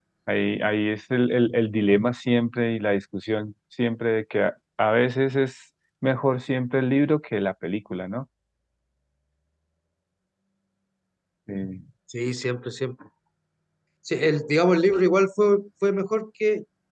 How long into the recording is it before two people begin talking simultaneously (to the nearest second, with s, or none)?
none